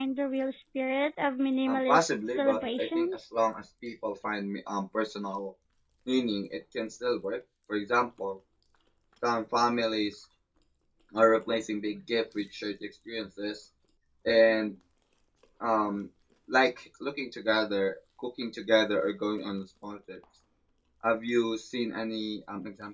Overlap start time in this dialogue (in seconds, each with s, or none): 1.7 s